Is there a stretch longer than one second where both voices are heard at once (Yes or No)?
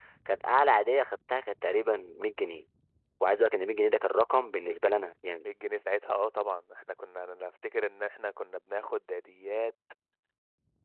No